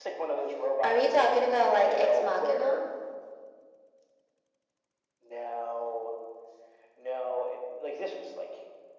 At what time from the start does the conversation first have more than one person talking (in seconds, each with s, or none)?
0.8 s